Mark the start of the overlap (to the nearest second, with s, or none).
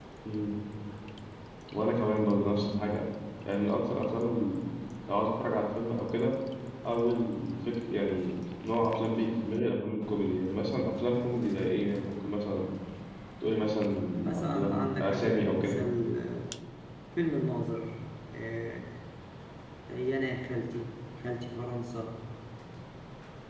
14 s